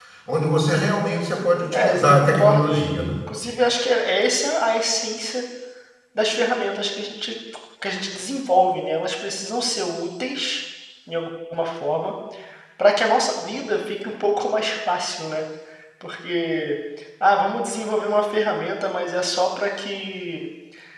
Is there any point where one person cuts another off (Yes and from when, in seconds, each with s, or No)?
Yes, from 1.7 s